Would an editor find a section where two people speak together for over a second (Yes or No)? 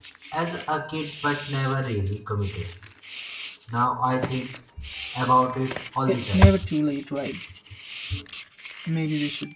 No